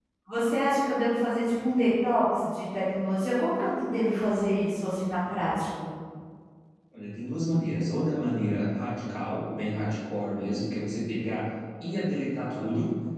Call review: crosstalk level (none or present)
none